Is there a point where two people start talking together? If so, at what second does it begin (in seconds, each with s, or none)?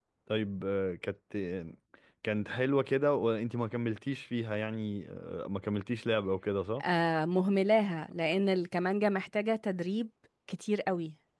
none